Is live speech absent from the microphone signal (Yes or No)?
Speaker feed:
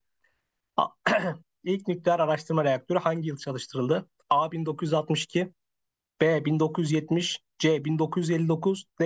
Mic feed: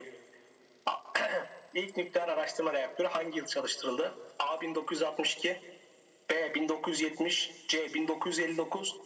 Yes